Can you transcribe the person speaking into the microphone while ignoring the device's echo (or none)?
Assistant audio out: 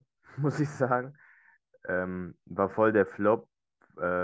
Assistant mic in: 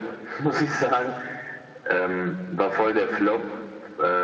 none